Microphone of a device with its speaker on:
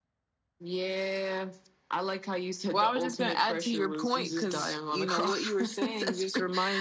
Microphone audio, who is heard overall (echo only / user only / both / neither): both